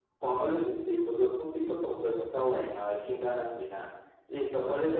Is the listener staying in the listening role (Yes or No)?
Yes